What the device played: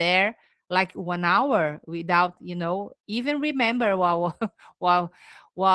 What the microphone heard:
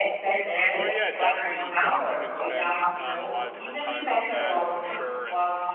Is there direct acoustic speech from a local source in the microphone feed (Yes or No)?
Yes